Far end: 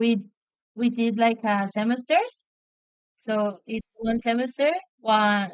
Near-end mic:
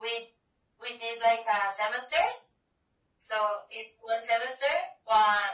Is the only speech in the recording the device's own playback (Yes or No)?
Yes